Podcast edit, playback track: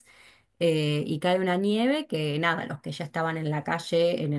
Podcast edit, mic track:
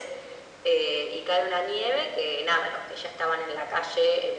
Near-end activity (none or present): none